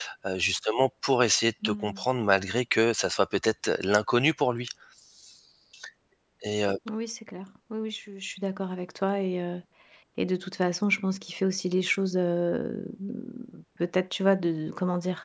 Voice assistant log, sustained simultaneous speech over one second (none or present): none